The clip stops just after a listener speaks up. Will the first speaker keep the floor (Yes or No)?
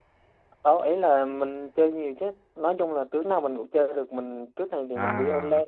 Yes